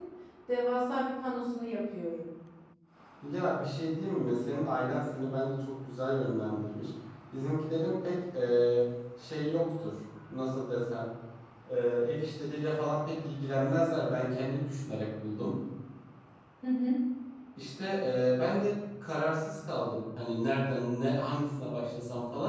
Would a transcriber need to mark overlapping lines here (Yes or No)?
No